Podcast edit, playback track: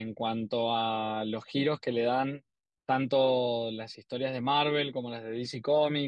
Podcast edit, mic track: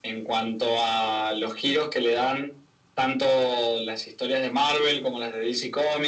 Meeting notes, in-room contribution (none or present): none